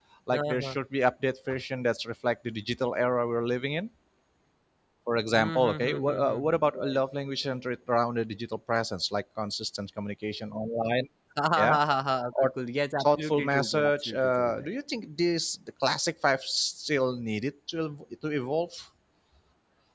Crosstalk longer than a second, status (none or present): present